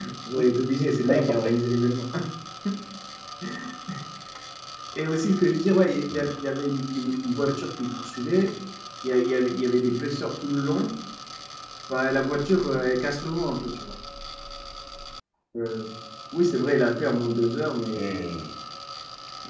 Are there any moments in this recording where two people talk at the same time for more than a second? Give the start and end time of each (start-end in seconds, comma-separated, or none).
none